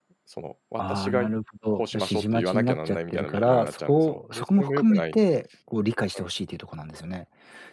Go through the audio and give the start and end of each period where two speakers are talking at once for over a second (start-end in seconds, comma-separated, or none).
1.7-5.2